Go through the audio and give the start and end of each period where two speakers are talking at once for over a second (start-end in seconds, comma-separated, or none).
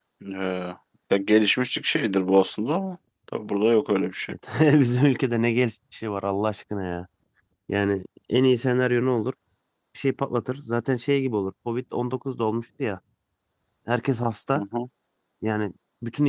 none